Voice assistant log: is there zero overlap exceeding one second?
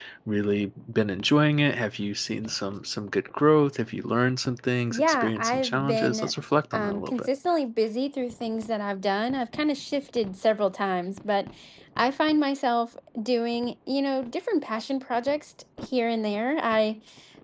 No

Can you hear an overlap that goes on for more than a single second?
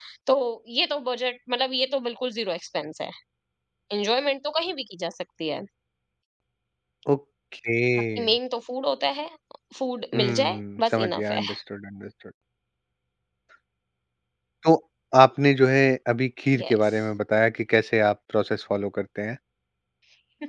Yes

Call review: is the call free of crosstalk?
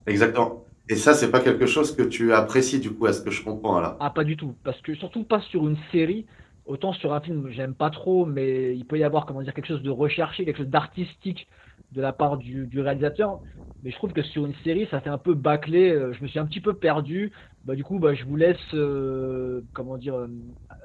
Yes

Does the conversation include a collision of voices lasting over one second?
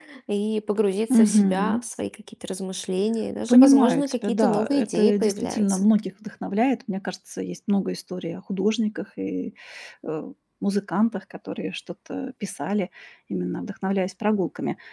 Yes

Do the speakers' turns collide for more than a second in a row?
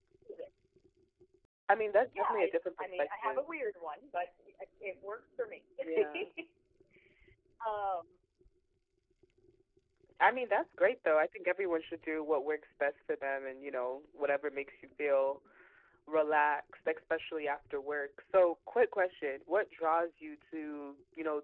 Yes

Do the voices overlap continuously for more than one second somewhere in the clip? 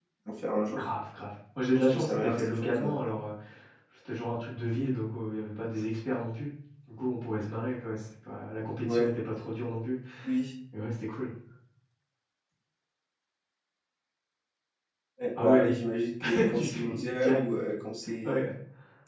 Yes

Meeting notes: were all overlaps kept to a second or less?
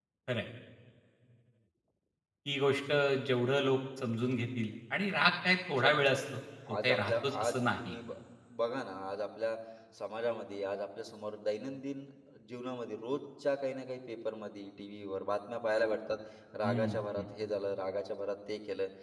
No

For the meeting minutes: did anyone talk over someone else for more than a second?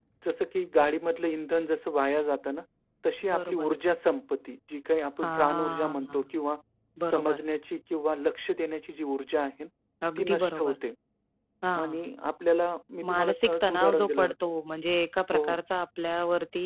Yes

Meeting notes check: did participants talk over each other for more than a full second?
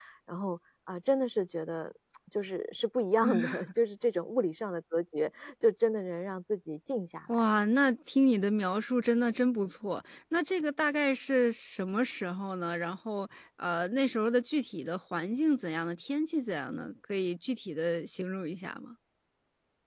No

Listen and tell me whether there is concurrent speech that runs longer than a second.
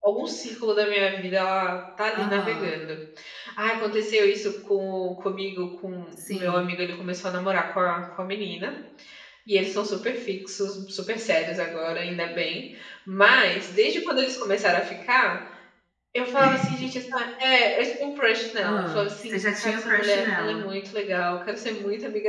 Yes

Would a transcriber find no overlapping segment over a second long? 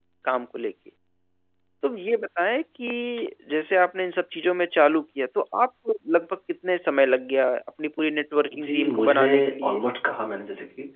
No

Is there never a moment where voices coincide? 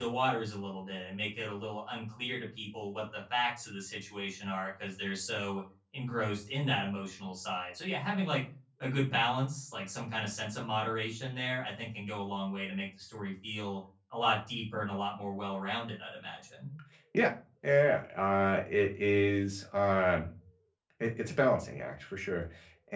Yes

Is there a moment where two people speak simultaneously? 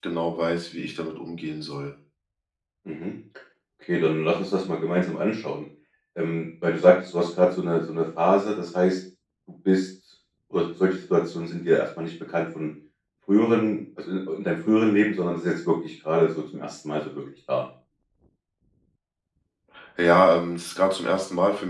No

